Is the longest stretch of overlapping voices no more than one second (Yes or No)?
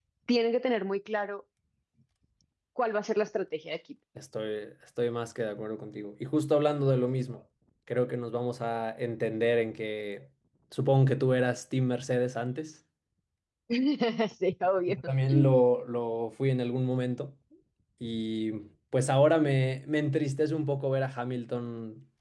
Yes